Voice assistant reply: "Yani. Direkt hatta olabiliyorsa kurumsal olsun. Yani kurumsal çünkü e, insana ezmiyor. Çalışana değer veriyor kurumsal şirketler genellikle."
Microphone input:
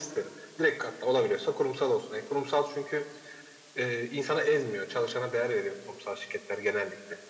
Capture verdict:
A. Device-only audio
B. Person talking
A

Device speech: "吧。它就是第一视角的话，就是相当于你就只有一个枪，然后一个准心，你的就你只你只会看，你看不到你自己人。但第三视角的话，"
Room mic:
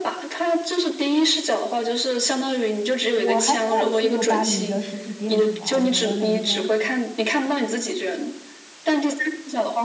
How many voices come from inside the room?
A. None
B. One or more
B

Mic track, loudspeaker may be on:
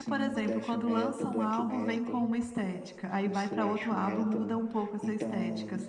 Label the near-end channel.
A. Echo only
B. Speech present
B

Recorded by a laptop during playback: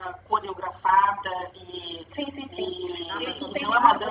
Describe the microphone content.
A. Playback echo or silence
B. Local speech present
B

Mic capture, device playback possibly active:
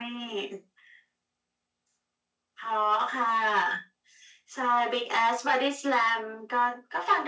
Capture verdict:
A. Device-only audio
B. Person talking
A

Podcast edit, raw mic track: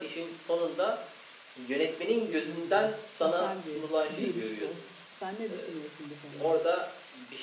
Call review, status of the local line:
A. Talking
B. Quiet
A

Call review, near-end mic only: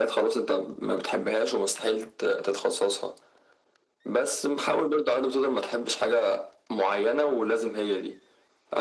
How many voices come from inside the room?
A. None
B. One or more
A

